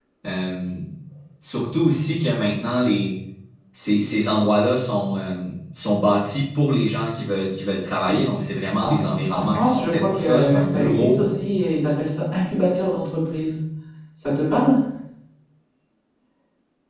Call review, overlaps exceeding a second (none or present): present